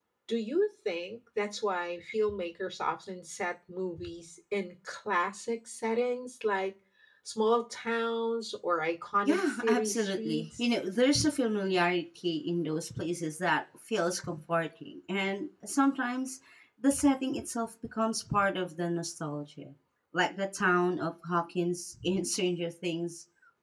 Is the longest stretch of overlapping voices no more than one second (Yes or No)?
No